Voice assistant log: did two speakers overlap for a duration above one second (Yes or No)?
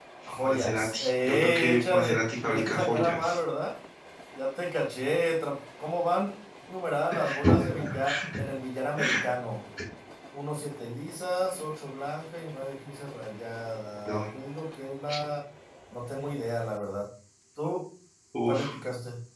Yes